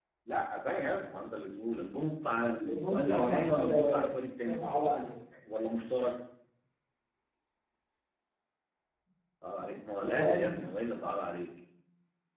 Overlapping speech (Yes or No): Yes